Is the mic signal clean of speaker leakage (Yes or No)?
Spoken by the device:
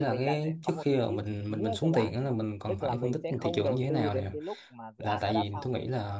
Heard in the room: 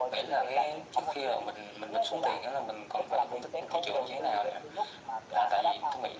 No